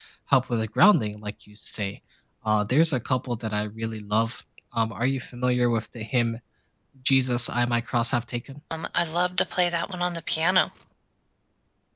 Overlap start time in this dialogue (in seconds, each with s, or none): none